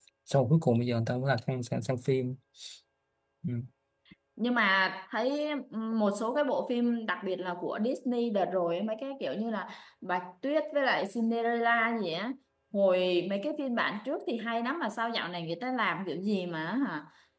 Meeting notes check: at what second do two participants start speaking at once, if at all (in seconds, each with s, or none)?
none